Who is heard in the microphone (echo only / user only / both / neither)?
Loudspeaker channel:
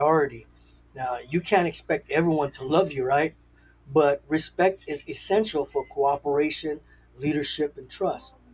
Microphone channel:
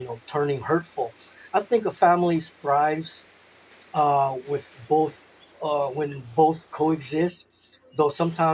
user only